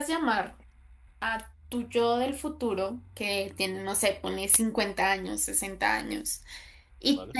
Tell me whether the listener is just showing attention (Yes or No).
Yes